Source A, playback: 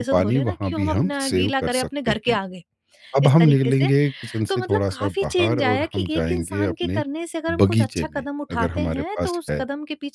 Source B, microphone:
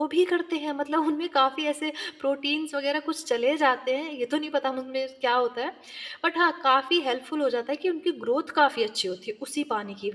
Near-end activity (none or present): present